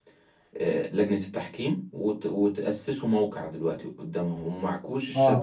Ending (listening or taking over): taking over